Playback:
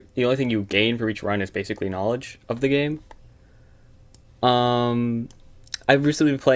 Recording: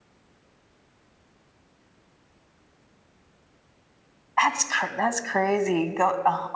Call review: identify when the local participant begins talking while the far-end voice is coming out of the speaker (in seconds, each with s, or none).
4.4 s